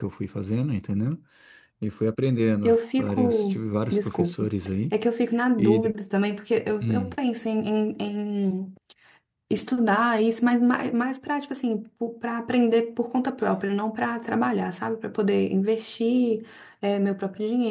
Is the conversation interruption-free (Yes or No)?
No